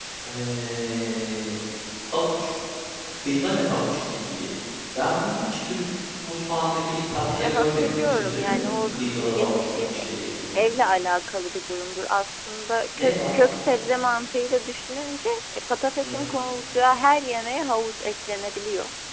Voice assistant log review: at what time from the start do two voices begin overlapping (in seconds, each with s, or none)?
7.4 s